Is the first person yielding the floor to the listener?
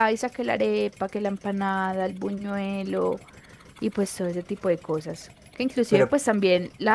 No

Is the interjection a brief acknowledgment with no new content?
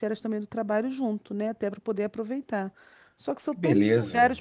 Yes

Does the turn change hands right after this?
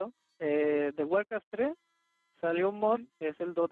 No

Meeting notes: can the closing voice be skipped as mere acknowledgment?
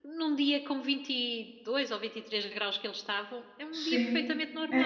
No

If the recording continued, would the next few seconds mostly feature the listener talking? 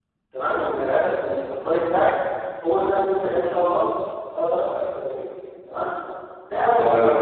No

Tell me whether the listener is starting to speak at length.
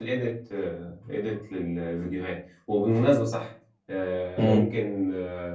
No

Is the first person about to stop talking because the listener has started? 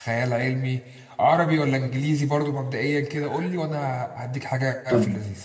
Yes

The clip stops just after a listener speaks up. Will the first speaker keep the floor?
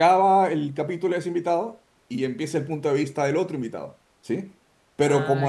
Yes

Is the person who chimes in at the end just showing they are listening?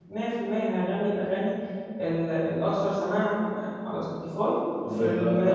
No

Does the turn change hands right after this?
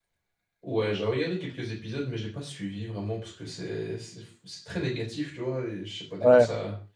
No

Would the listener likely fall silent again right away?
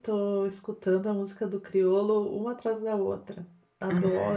No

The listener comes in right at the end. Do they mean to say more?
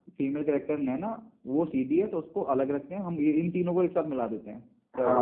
Yes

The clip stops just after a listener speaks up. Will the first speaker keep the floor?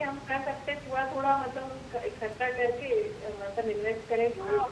No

